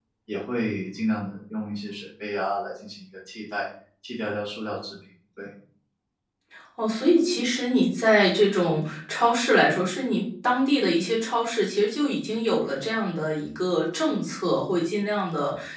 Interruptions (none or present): none